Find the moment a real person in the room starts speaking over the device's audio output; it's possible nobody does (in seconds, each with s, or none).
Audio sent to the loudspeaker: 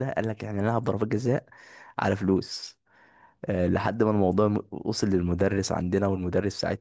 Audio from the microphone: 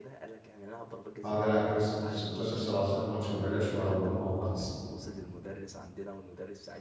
1.2 s